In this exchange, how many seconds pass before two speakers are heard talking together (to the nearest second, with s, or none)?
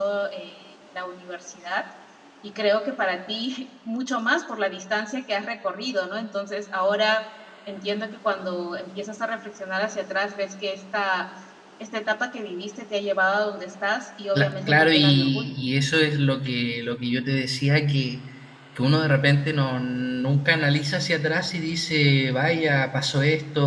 14 s